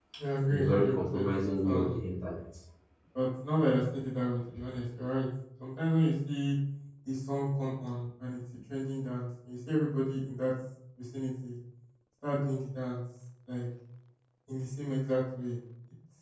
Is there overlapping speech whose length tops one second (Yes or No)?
Yes